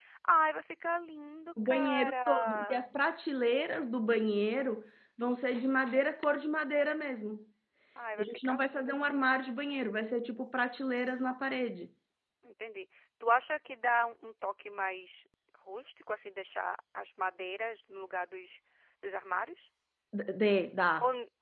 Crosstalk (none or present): present